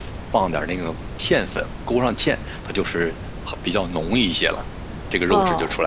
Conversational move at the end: taking over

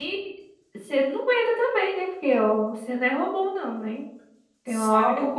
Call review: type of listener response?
listening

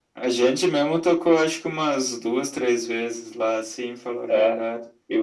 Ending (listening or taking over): taking over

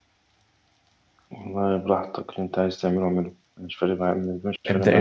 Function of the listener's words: taking over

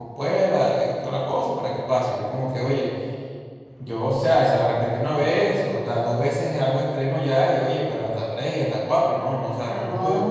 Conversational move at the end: taking over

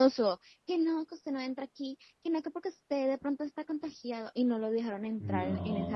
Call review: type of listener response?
listening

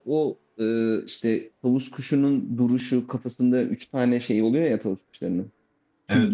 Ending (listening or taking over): taking over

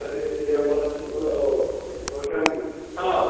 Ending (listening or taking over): taking over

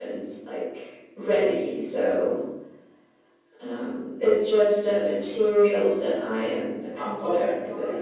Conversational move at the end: taking over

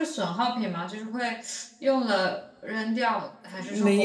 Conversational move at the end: taking over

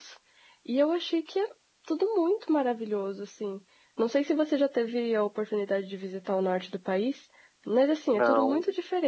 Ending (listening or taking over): listening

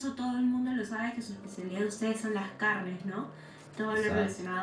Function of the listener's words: listening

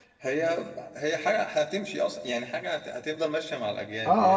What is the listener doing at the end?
taking over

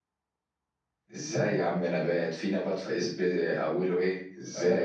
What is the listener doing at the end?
taking over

